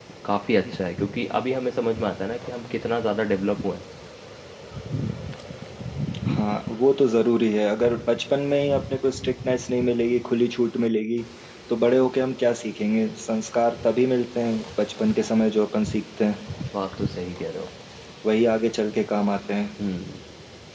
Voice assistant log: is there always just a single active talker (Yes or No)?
Yes